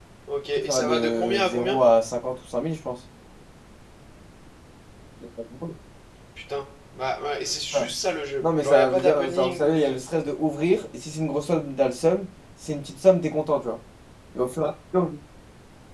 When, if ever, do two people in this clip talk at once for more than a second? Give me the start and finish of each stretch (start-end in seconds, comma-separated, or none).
0.6-1.8, 8.4-10.0